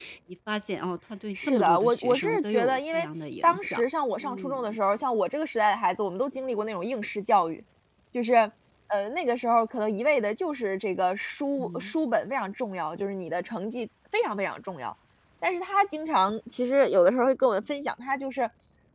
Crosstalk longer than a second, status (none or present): present